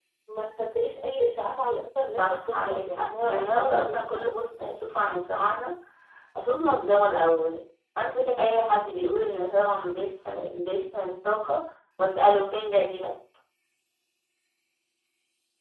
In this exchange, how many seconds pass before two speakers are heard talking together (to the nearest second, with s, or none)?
2 s